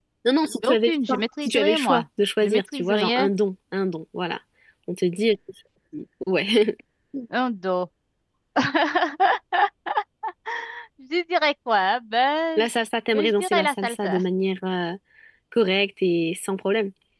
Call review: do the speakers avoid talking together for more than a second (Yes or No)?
No